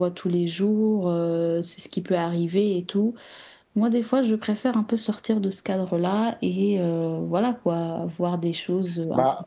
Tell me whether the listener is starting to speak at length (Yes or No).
Yes